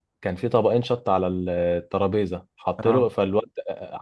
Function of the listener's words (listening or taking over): listening